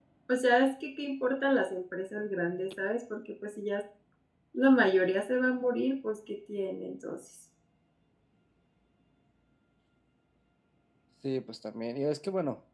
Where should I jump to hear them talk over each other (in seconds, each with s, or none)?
none